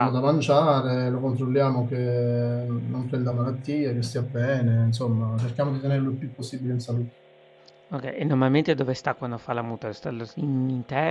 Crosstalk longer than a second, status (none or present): none